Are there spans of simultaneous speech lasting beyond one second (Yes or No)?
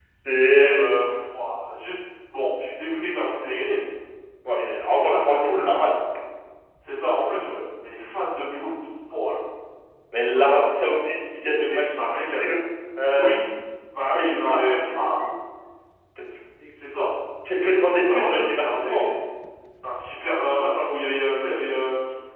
Yes